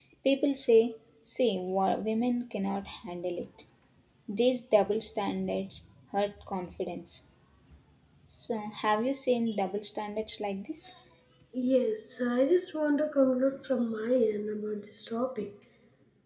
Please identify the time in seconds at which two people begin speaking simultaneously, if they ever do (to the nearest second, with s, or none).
none